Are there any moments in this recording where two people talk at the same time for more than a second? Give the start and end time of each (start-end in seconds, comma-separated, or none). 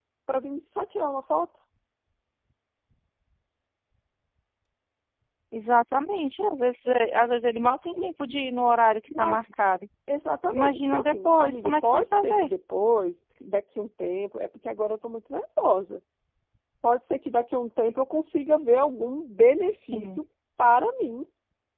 10.5-12.5